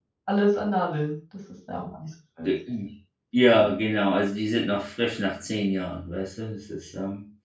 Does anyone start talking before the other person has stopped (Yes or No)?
No